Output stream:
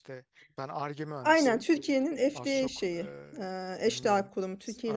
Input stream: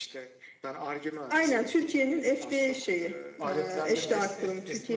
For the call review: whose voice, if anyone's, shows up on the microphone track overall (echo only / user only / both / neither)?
both